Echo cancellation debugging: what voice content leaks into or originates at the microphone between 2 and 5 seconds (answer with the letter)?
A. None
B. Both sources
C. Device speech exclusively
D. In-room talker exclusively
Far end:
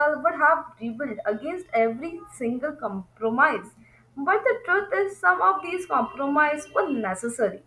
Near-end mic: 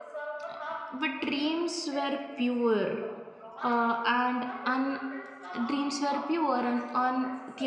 B